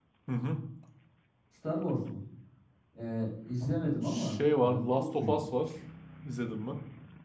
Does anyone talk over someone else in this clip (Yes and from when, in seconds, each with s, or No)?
Yes, from 4.0 s